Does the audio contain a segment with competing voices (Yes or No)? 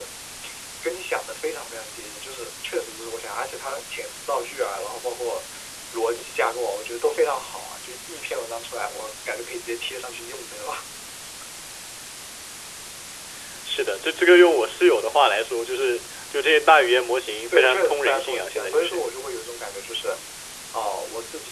Yes